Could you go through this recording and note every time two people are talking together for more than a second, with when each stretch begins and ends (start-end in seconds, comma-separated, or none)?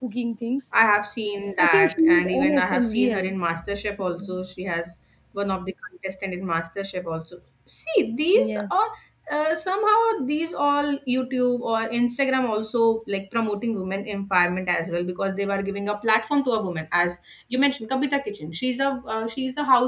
1.6-3.3